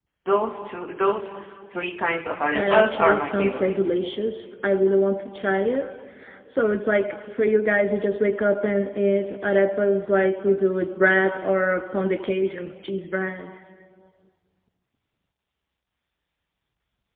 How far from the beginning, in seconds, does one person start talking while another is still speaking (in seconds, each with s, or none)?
2.5 s